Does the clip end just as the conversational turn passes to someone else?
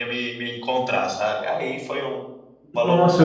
Yes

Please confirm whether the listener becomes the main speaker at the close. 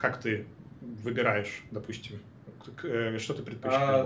Yes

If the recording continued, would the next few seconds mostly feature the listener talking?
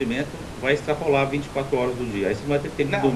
Yes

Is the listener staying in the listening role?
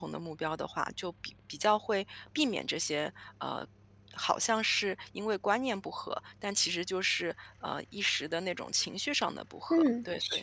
No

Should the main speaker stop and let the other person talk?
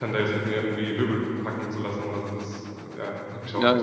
Yes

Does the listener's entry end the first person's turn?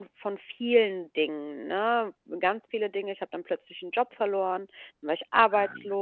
No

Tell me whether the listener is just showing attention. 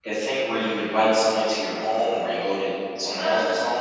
No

